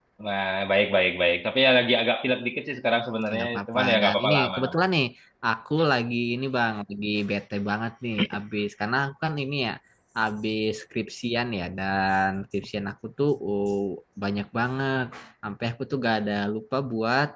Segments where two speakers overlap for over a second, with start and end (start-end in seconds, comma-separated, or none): 3.3-4.8